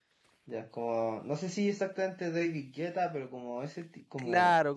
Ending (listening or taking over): taking over